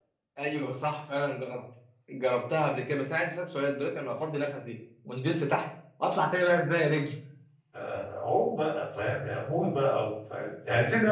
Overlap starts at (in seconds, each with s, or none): none